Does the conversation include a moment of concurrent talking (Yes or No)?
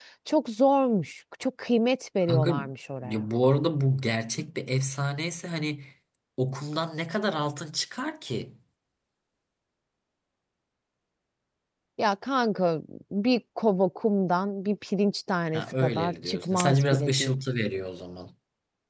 Yes